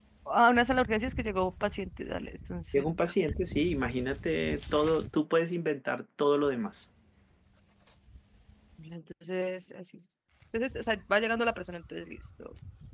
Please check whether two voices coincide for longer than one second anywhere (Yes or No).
No